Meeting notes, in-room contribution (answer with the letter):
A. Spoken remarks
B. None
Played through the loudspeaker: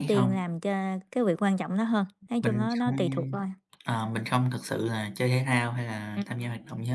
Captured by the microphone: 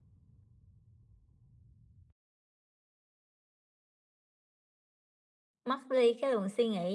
A